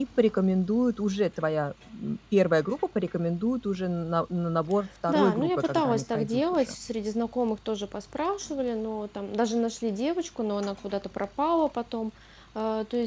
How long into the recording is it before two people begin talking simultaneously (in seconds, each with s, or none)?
5.1 s